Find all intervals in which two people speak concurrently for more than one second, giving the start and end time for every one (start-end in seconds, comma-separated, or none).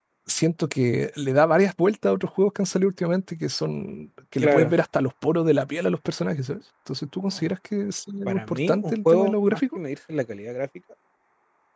8.3-9.8